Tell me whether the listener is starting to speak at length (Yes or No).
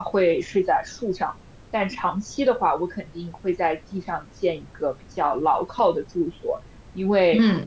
No